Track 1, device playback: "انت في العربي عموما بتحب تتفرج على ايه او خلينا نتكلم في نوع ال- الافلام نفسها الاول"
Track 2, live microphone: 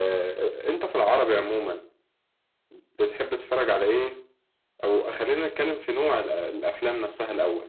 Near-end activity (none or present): none